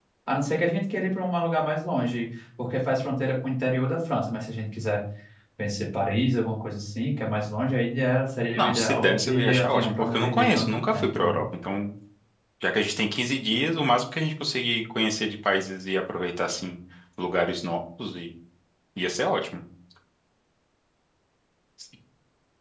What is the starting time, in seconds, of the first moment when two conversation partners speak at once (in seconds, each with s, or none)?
8.6 s